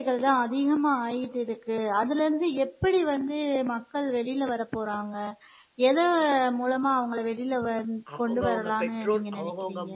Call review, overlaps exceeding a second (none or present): present